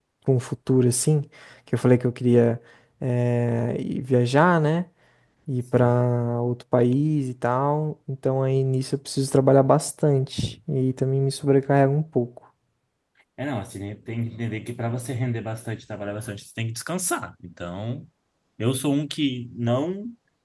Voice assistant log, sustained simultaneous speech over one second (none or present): none